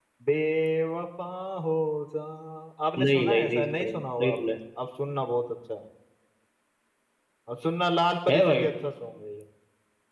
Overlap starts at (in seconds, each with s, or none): 3.0 s